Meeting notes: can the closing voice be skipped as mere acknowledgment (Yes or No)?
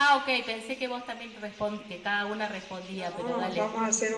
No